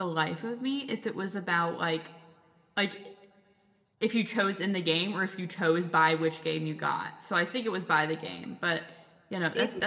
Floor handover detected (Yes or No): Yes